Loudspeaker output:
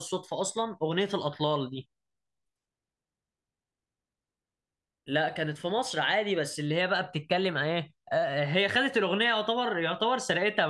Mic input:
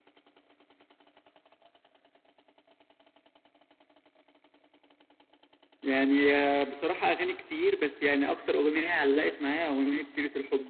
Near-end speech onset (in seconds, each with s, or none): 5.8 s